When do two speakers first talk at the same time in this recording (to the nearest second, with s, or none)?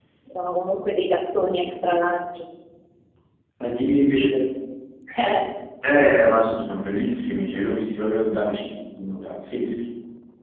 none